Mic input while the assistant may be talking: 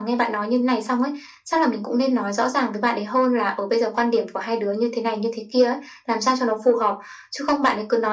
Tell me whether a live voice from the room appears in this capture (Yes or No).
No